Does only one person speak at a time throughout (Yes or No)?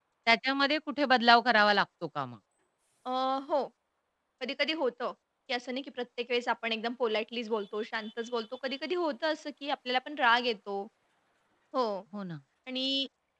Yes